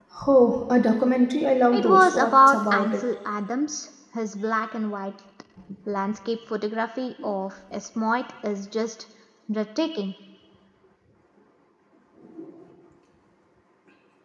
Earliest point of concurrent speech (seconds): 1.7 s

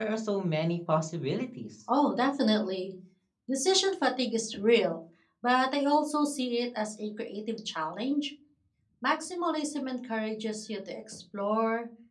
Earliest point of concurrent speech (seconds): none

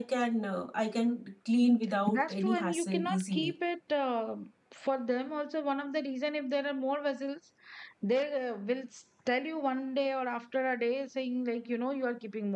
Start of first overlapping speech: 1.8 s

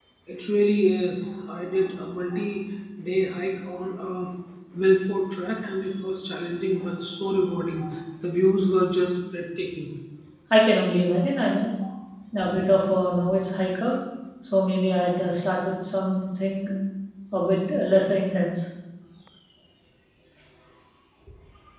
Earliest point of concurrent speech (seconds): none

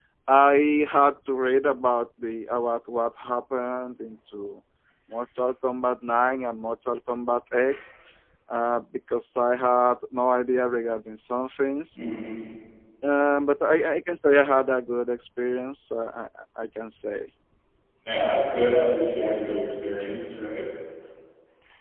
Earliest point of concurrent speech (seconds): none

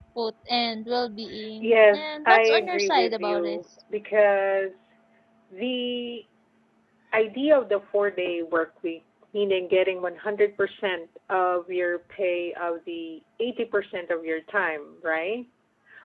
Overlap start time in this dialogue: 1.6 s

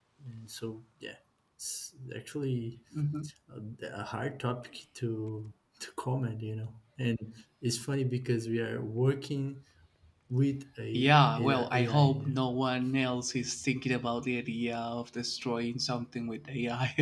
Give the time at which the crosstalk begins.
10.9 s

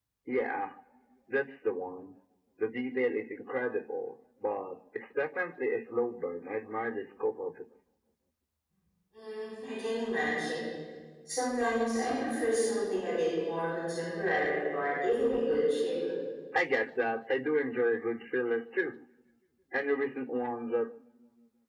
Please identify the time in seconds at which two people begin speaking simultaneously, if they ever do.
none

